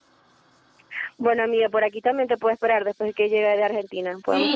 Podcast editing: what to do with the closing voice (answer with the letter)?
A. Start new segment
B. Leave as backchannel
A